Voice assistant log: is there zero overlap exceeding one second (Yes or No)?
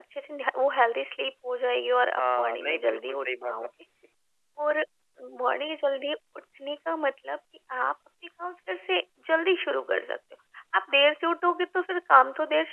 No